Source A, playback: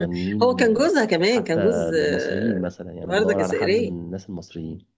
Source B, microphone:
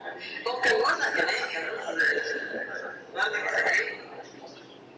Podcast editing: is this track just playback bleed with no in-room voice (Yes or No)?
Yes